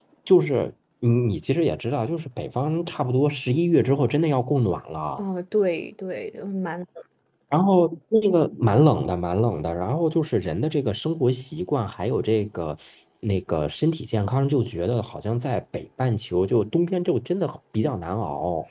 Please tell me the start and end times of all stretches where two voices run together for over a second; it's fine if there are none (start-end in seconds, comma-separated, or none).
none